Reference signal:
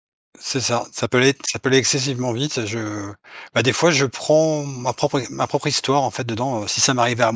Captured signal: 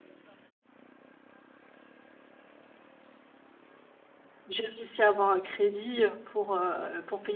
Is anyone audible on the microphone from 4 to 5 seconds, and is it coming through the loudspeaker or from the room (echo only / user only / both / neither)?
user only